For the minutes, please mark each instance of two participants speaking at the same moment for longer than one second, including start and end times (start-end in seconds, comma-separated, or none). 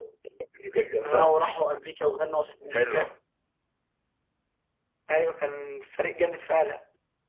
none